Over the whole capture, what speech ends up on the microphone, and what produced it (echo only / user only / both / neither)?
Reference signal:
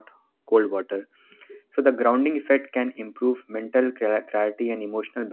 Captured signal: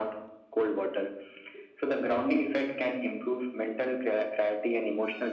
echo only